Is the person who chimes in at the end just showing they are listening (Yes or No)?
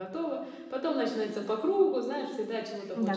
No